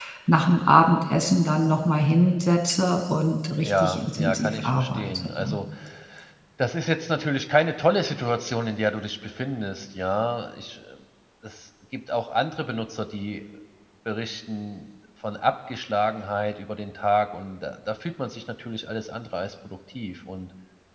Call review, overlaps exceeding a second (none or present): present